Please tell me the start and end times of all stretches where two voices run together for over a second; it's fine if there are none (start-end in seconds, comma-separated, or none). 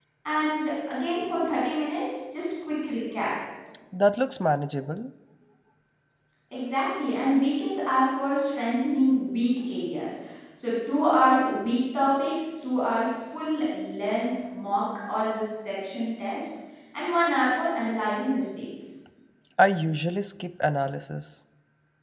none